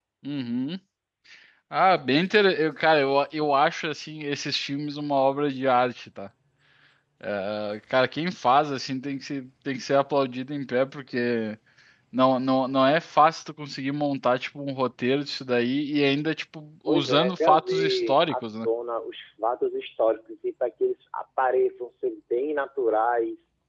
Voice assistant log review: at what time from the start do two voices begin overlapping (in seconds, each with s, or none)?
16.9 s